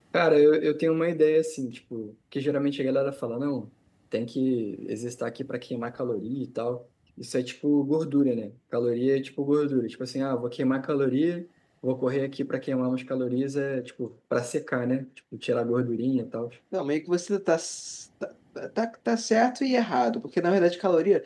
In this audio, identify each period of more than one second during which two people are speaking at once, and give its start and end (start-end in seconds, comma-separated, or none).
none